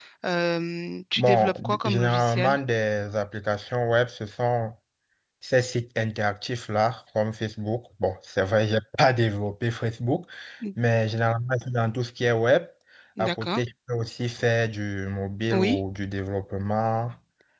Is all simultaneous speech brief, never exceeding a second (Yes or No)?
No